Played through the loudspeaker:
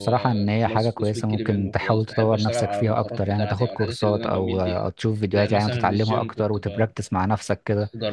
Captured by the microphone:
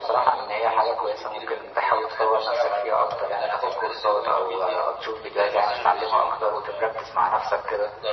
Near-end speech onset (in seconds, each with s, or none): none